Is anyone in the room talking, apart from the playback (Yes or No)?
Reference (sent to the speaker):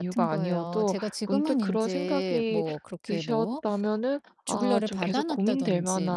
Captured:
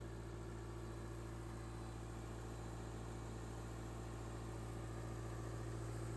No